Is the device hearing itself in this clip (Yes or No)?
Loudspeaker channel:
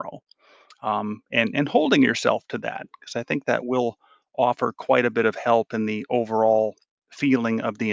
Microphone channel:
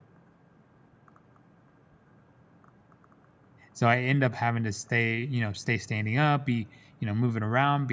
No